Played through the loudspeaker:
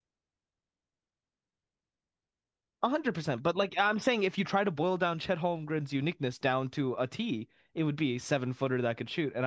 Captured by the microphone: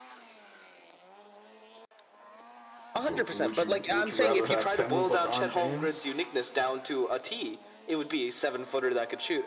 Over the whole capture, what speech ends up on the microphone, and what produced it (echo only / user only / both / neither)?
both